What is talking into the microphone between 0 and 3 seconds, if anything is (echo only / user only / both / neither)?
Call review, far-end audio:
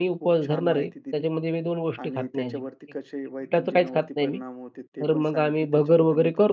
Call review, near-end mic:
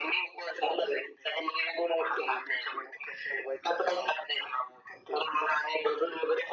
echo only